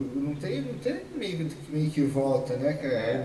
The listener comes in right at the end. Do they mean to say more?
Yes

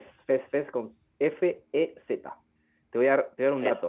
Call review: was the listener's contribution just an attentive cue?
Yes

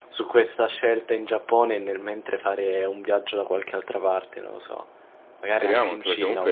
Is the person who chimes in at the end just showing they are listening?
No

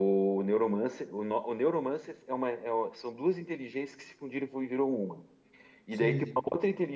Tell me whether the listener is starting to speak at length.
No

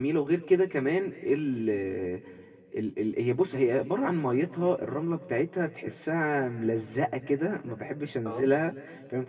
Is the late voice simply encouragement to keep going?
Yes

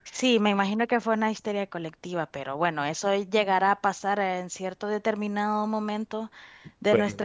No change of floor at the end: Yes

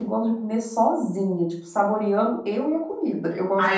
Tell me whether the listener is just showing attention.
No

